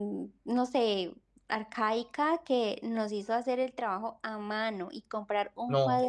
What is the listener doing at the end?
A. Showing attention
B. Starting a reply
A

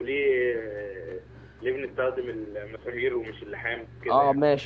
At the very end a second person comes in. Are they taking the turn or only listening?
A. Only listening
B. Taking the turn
B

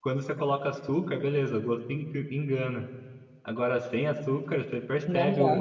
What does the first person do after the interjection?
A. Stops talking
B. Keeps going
B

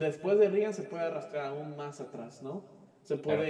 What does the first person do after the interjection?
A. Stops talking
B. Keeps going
B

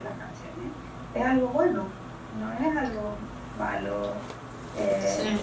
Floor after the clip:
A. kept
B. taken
A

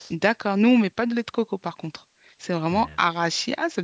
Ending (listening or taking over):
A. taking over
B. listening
B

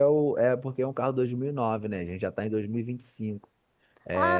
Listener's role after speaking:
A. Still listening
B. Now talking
B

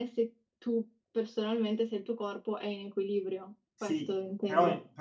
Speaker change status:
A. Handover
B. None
A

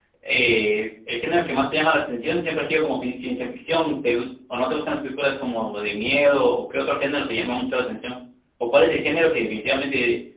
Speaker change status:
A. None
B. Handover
A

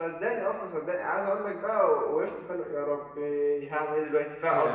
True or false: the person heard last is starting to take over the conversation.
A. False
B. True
A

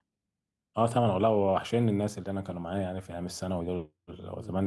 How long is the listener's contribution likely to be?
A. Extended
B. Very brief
B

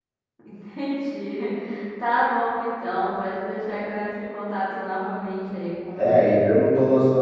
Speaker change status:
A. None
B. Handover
B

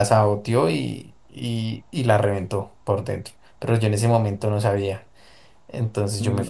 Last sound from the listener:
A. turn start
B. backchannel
A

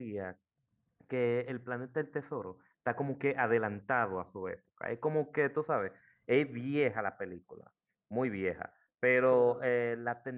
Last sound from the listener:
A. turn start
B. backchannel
B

